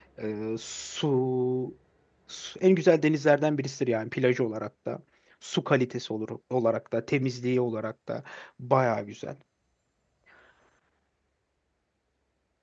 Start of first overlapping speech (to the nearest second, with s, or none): none